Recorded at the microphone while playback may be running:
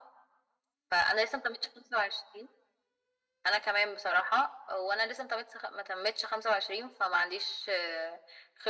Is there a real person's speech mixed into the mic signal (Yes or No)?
No